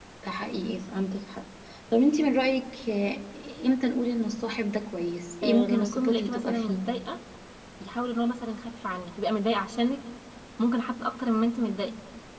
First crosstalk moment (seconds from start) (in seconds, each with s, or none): 5.4 s